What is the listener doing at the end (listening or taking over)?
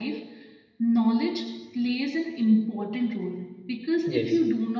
listening